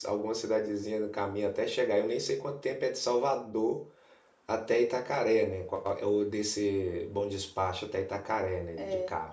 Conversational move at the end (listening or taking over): taking over